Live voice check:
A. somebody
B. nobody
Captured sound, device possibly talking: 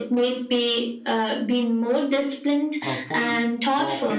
A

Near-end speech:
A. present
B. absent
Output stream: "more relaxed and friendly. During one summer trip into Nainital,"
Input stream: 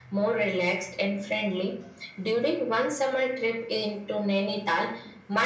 B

